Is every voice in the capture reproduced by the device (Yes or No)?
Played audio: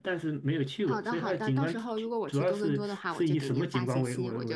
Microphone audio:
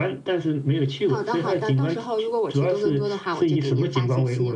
Yes